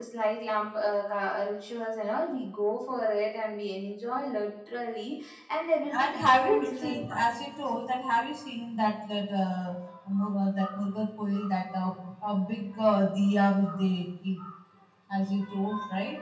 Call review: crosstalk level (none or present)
present